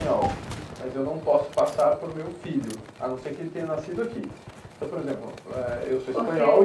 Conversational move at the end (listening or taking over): taking over